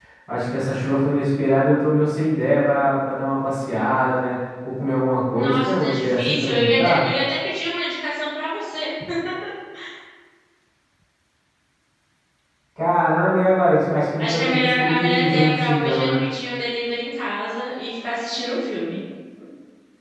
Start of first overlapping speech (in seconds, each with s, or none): 5.3 s